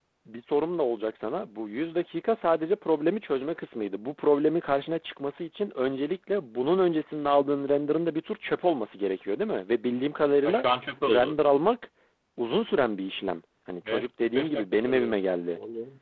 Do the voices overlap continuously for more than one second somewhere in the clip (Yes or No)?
Yes